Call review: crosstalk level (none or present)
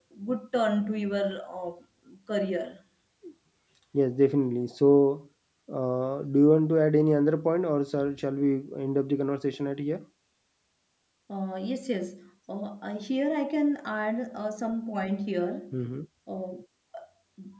none